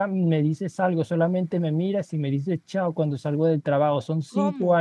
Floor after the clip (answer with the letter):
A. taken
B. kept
B